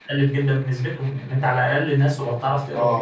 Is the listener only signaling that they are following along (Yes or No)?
No